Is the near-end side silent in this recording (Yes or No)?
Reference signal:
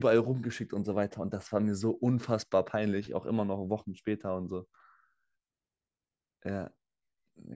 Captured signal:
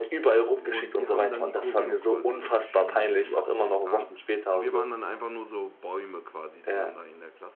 No